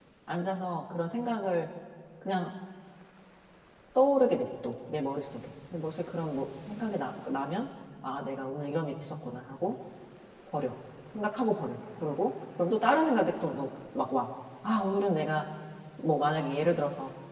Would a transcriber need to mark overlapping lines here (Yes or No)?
No